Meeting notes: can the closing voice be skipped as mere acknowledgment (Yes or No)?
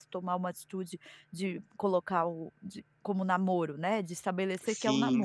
No